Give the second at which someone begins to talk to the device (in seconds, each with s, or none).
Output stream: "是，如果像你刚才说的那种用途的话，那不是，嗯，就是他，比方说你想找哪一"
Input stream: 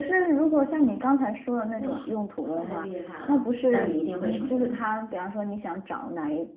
1.8 s